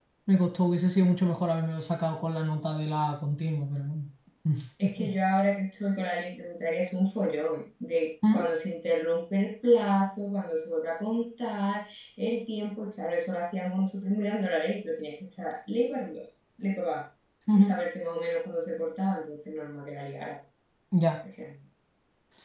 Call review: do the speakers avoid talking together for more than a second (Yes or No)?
Yes